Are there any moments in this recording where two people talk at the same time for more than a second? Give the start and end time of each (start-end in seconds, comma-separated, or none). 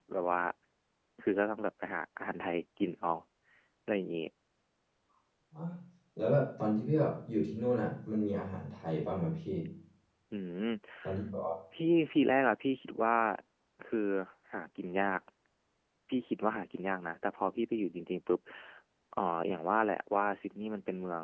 none